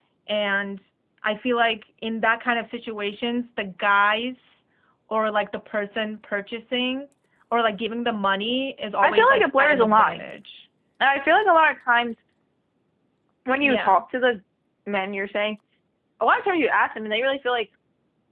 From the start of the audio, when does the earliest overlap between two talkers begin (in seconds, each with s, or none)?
9.0 s